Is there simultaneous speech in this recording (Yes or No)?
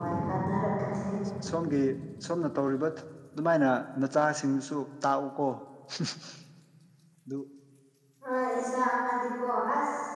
No